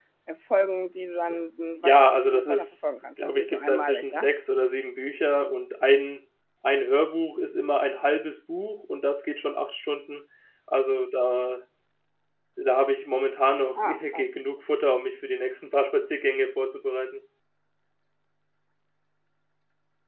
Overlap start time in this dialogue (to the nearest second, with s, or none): 2 s